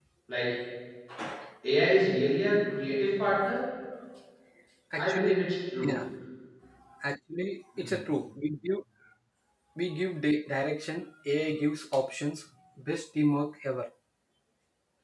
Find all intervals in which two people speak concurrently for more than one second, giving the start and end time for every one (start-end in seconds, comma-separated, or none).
none